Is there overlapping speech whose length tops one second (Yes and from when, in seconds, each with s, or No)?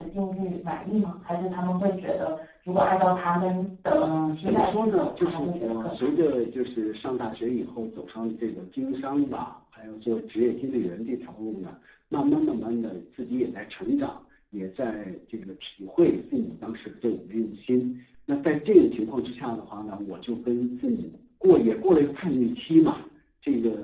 Yes, from 3.9 s